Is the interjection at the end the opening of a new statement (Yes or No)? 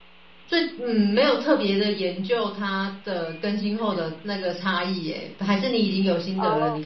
Yes